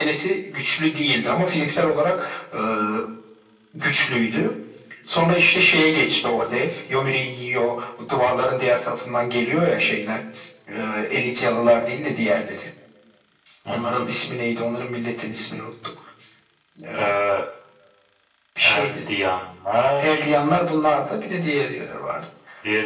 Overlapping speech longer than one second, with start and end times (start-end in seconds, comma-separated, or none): none